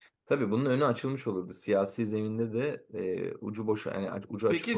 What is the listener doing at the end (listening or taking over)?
taking over